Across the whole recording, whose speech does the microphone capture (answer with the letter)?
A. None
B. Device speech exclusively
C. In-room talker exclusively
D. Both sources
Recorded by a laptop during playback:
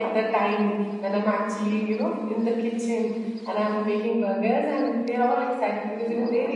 B